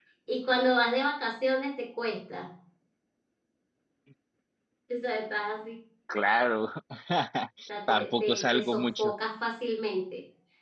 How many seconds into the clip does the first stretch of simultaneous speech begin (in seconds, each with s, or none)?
7.9 s